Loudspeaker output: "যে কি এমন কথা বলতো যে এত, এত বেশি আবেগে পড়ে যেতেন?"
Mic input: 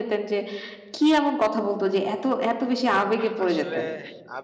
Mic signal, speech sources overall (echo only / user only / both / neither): both